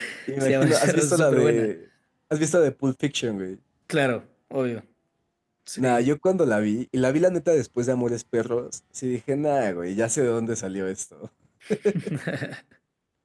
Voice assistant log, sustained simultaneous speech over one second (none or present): present